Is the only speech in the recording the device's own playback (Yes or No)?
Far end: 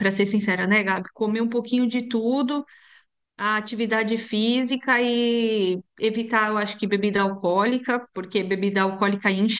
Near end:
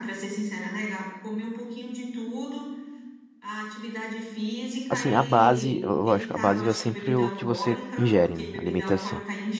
No